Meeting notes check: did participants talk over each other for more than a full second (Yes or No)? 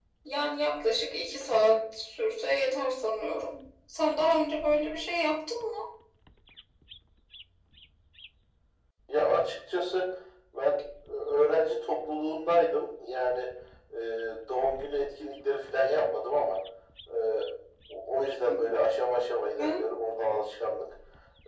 No